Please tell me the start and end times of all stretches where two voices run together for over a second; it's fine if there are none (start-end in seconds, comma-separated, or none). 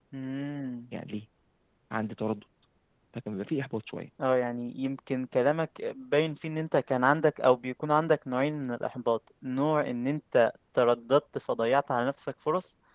none